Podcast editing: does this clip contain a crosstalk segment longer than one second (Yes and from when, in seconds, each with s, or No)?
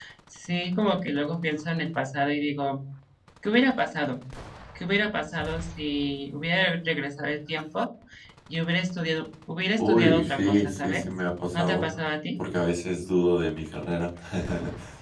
Yes, from 9.8 s